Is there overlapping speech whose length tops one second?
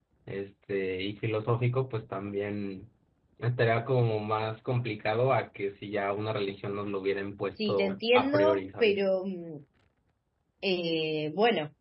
Yes, from 7.5 s

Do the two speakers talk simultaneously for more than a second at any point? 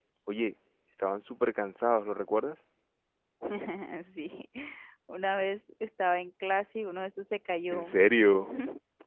No

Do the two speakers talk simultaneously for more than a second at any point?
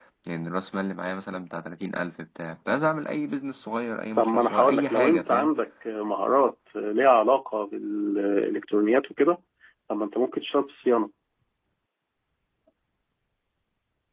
Yes, from 4.2 s

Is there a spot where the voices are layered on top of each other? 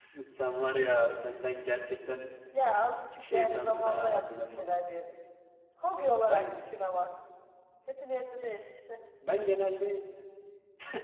Yes, from 3.3 s

